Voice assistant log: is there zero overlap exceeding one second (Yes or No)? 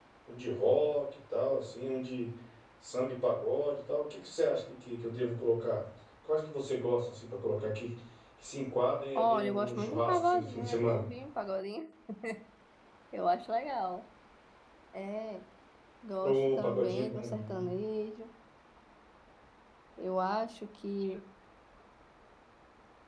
No